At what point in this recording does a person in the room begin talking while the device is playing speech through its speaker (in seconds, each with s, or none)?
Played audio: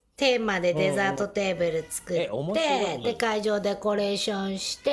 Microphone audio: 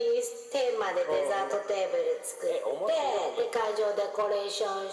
none